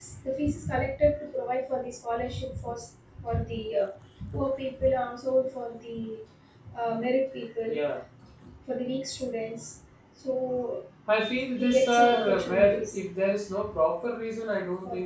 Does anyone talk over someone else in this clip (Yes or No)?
Yes